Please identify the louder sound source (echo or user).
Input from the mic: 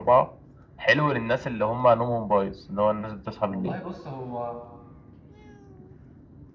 echo